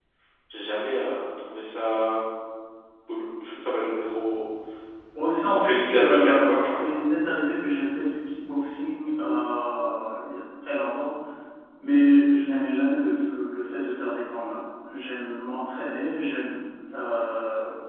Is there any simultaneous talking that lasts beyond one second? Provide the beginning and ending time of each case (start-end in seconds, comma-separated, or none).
5.5-6.8